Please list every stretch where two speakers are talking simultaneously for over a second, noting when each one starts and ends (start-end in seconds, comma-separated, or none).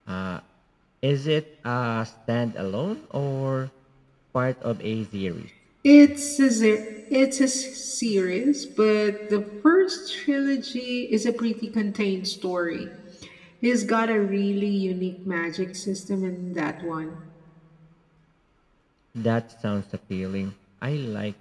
none